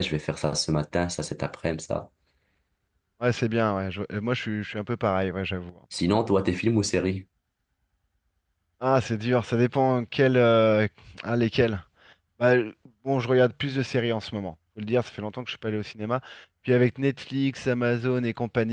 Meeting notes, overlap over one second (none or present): none